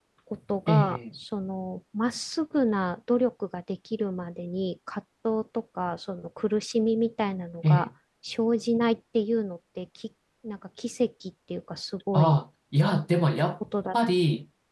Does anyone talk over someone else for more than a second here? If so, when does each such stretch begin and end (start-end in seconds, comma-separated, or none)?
none